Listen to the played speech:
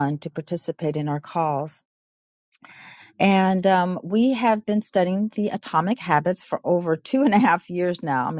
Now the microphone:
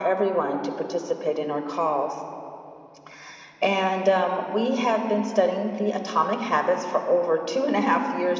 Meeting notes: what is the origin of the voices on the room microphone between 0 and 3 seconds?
echo only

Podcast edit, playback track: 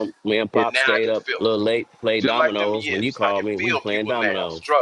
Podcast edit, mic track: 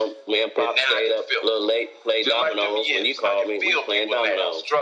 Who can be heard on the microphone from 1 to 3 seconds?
echo only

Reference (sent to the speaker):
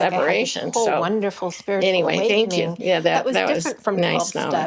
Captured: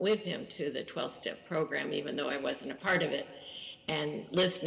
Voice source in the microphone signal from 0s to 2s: user only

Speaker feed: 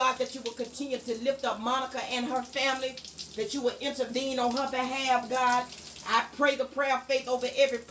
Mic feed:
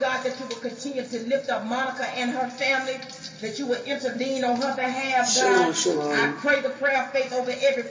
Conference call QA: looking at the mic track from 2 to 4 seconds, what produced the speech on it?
echo only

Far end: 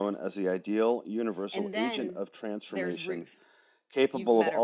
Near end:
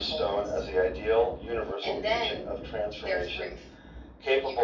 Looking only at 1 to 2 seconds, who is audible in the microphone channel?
echo only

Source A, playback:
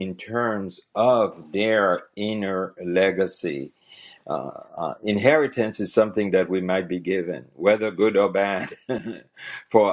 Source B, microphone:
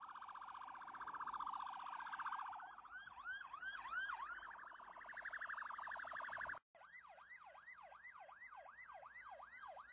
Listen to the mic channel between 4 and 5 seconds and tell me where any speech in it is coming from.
neither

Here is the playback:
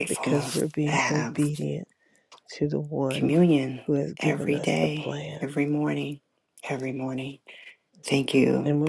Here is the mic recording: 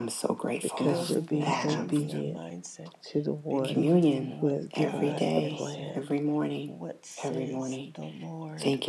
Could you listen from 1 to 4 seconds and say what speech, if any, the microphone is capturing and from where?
both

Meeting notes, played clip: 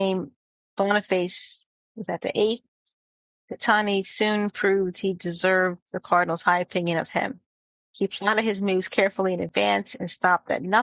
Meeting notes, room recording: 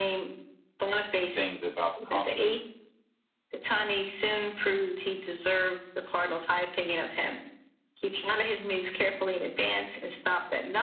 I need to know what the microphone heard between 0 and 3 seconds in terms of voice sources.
both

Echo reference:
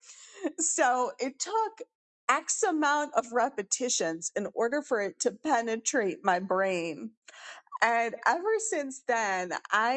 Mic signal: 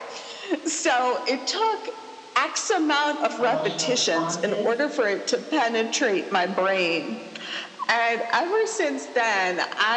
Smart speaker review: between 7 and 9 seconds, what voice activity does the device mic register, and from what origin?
echo only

